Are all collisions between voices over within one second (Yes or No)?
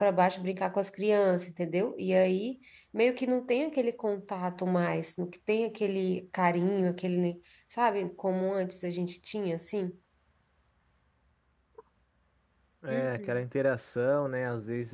Yes